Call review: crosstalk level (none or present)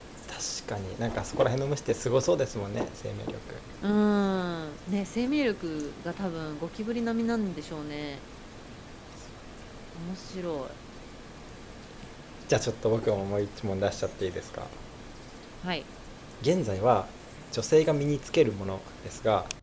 none